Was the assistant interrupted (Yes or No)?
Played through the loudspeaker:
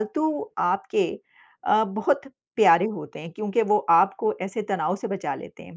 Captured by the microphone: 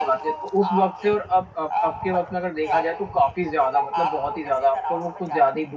Yes